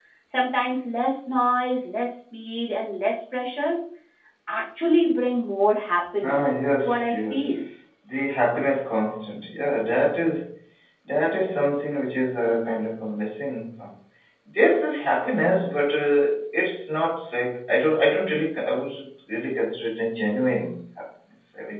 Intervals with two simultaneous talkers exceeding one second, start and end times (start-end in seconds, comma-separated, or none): 6.2-7.6